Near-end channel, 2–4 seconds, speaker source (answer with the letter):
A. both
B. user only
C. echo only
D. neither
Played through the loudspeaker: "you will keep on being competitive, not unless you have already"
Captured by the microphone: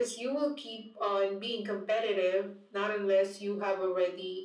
C